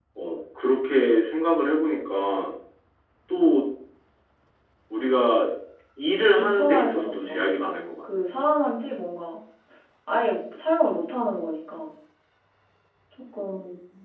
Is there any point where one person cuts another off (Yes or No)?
Yes